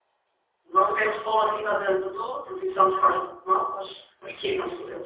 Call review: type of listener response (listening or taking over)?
taking over